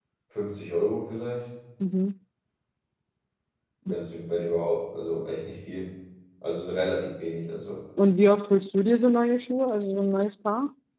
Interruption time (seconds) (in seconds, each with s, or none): none